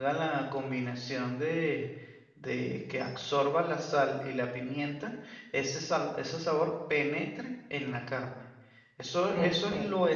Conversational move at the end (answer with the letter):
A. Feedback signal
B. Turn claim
A